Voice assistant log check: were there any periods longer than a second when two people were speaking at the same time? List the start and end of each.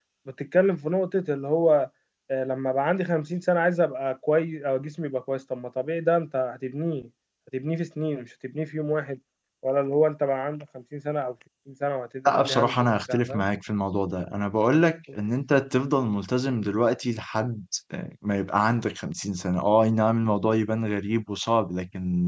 12.3-13.5

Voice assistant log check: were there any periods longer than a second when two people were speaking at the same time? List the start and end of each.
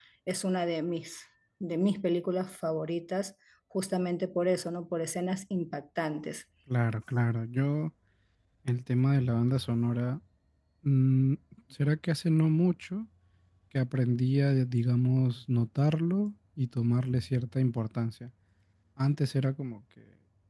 none

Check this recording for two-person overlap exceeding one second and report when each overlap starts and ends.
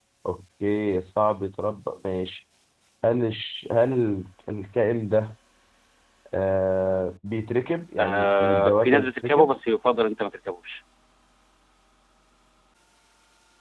8.0-9.5

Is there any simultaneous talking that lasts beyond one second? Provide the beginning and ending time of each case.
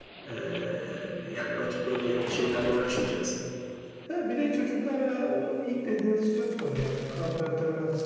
none

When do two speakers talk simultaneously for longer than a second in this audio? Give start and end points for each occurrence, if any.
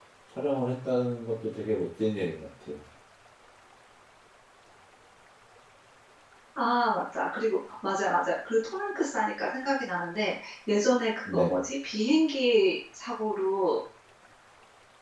none

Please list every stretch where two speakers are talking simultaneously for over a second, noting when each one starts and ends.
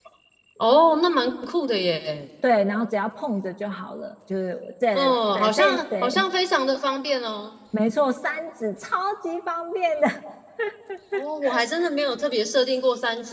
4.9-6.2

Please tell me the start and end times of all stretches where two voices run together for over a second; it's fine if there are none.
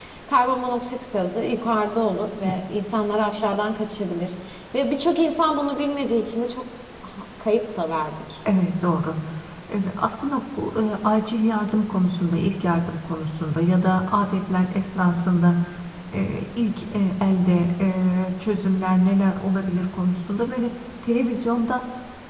none

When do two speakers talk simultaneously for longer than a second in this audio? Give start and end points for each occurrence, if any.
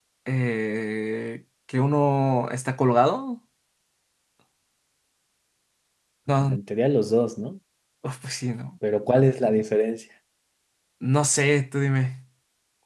none

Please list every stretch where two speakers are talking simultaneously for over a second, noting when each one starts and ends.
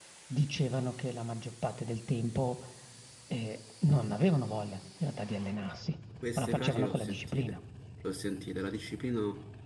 6.4-7.6

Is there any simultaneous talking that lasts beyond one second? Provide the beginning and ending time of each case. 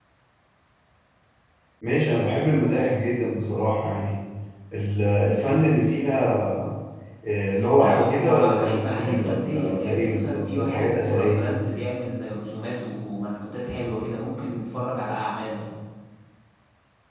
7.7-11.8

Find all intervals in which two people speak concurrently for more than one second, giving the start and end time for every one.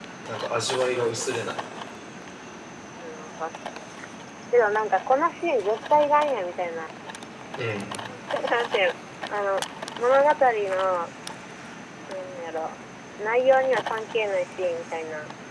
none

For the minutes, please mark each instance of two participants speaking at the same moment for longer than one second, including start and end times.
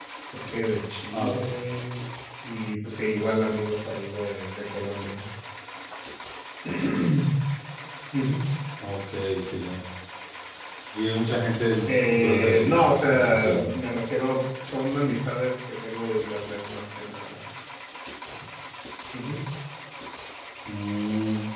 11.9-13.7

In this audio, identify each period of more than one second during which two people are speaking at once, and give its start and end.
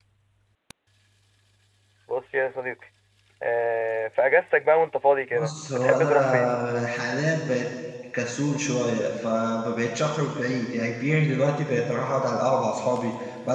5.3-6.6

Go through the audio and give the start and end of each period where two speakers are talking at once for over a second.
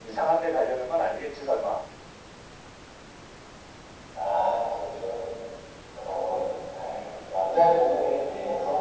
none

